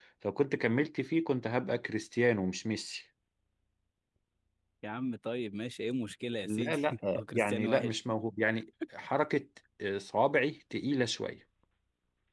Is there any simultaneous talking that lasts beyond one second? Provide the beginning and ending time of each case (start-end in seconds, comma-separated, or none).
6.5-8.0